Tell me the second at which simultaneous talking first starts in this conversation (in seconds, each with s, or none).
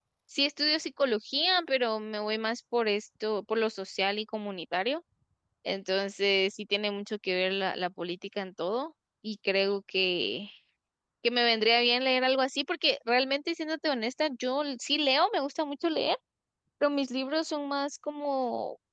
none